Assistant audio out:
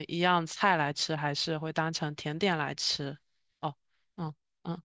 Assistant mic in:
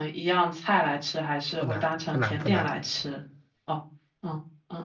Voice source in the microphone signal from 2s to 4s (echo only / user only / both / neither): both